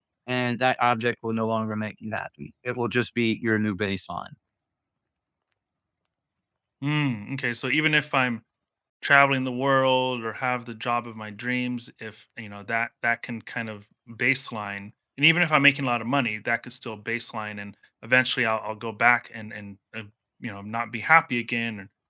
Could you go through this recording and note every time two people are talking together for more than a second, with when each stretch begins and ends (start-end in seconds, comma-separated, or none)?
none